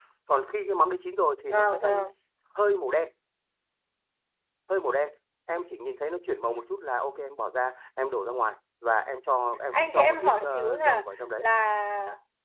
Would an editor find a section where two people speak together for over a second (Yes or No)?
Yes